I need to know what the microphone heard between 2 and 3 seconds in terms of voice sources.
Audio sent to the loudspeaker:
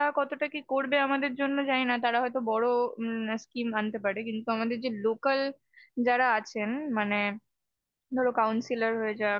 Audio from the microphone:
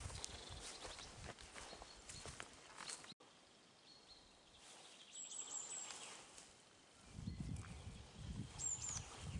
neither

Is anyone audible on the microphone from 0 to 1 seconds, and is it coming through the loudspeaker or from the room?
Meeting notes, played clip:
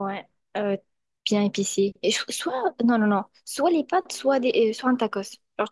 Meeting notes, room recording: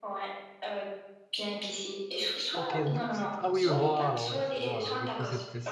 echo only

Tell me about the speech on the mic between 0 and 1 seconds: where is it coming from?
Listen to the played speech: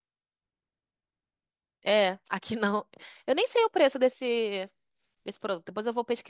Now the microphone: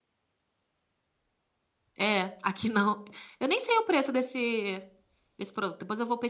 neither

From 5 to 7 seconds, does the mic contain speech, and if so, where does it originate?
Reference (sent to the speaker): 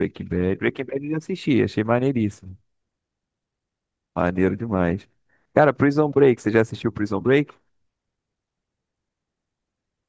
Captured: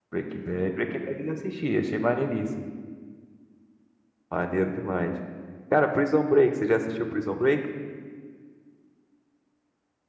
echo only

